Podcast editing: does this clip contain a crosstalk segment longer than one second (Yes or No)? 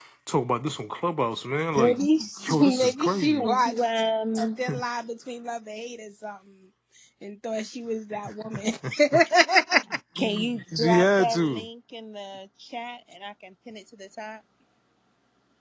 Yes